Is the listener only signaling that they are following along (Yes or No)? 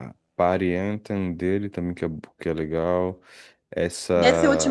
No